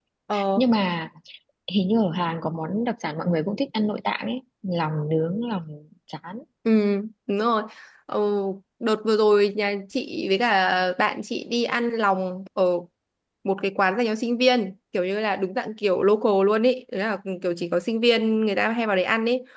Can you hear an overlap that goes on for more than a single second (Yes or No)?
No